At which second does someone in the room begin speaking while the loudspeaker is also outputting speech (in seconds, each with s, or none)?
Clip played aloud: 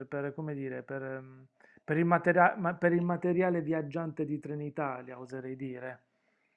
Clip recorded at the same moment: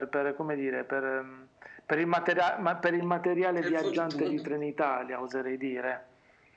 3.6 s